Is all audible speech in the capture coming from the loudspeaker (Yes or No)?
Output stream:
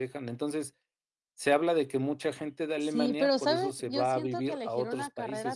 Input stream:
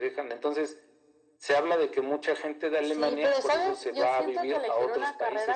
Yes